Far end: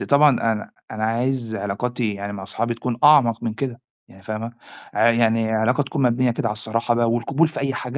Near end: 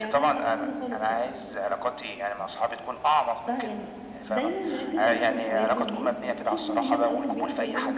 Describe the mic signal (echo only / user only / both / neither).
both